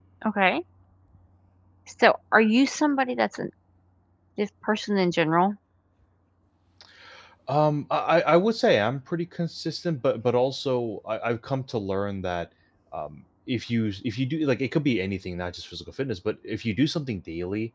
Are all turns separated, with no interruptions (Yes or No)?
Yes